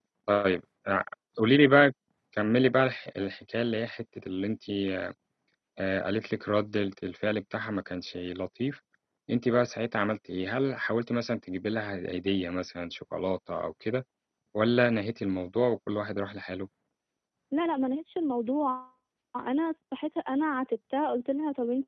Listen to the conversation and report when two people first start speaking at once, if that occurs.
none

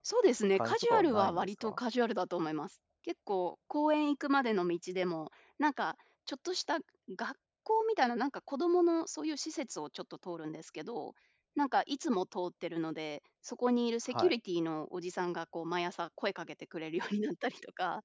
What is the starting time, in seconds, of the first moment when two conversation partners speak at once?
0.6 s

